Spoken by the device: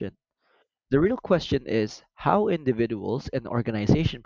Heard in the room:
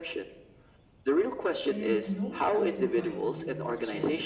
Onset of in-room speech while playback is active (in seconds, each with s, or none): 1.7 s